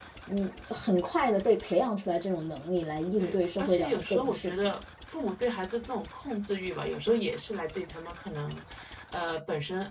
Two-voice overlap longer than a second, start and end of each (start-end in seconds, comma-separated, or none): 3.2-4.8